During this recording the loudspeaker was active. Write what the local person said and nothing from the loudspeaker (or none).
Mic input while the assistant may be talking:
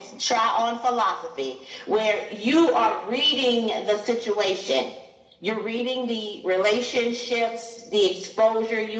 none